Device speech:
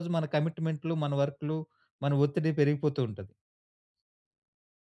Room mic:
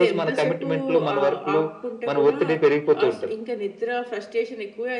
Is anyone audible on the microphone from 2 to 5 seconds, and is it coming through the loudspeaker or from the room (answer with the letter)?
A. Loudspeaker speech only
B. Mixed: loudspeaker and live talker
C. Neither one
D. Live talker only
B